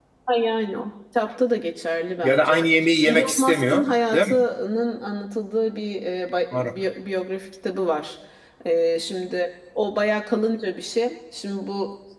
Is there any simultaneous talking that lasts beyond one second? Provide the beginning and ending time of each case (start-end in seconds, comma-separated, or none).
3.0-4.4